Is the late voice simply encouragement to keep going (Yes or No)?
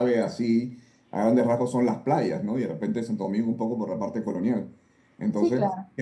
Yes